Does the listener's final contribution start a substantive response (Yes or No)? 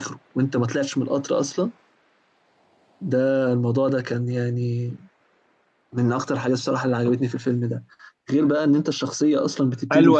Yes